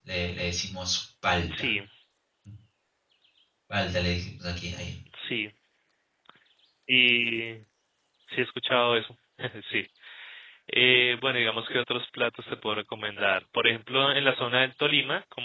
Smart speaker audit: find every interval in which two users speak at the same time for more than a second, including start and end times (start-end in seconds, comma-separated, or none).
none